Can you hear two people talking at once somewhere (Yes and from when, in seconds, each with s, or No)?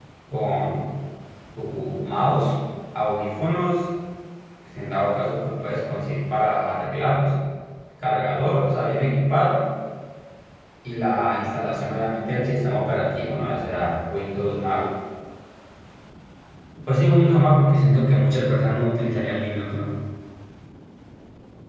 No